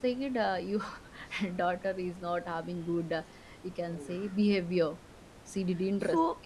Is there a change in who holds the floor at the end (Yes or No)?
Yes